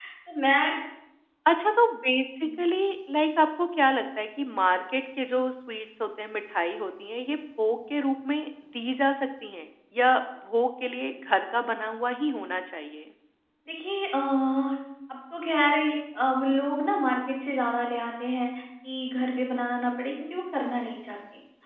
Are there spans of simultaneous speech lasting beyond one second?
No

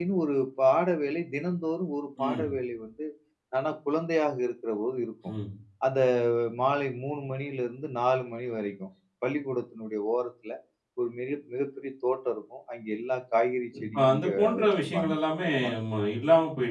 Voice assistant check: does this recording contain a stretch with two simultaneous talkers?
Yes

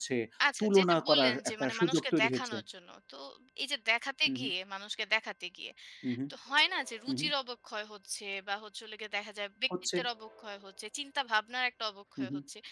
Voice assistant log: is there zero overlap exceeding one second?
No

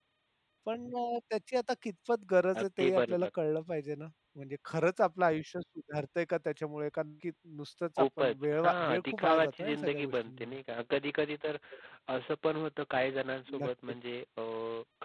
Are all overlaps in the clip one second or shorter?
No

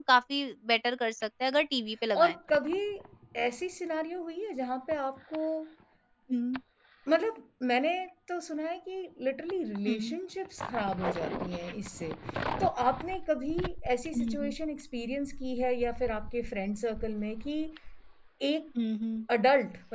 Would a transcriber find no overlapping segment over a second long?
Yes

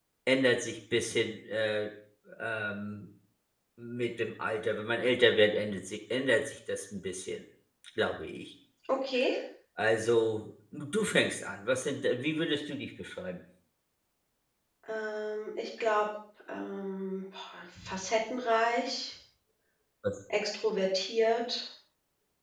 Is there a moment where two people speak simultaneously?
No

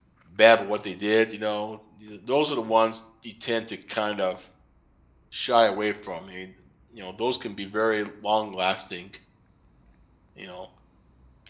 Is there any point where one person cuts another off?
No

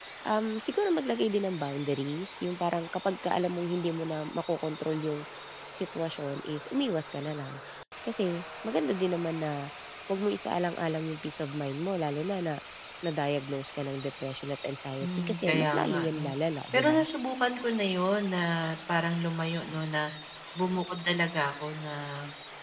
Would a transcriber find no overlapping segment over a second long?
No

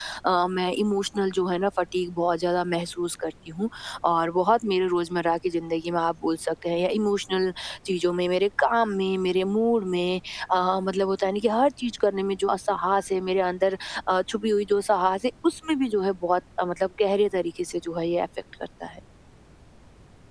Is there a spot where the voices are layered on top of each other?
No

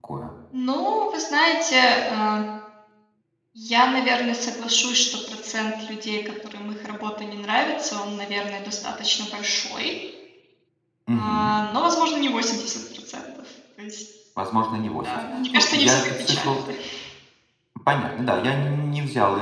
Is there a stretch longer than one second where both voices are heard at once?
Yes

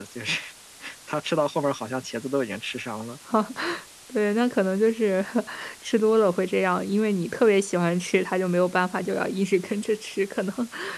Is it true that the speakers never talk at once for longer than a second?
Yes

